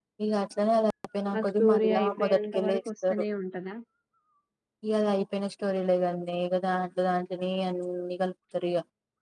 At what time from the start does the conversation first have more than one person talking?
1.3 s

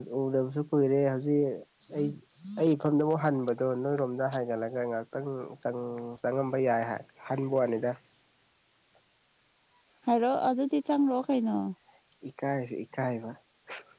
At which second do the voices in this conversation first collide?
none

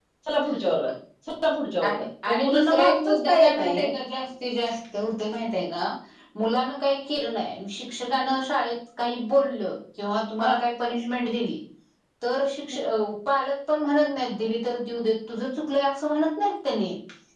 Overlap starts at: 1.8 s

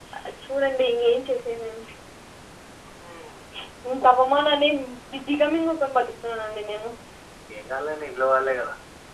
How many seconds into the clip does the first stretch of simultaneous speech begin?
none

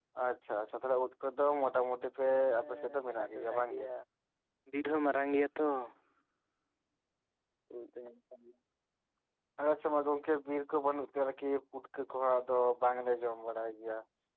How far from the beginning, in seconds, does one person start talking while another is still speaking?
2.6 s

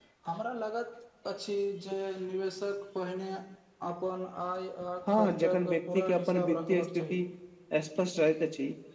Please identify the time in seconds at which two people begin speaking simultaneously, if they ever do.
5.1 s

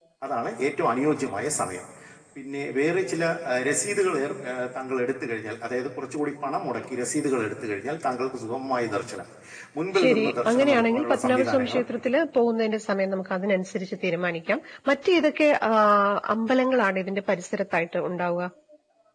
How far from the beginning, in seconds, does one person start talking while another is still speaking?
10.0 s

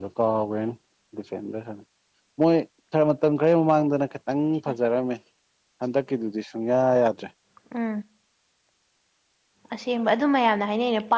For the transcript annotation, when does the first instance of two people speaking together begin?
none

